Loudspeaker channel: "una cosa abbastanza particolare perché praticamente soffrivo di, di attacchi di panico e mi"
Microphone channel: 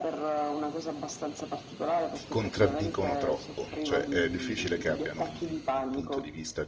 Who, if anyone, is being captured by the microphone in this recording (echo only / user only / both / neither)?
both